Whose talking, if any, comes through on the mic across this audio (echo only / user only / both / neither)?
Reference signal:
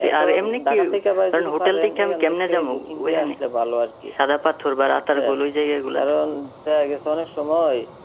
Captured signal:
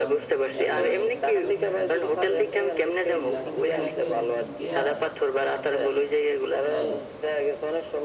both